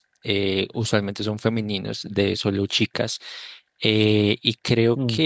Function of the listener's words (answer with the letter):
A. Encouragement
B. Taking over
A